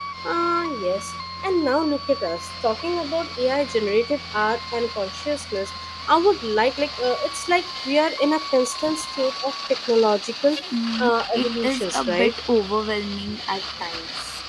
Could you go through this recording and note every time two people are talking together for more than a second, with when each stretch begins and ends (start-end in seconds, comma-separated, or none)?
11.0-12.3